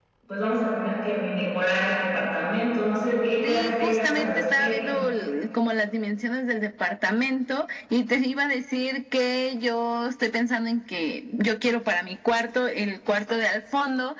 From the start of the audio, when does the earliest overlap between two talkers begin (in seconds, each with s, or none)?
3.4 s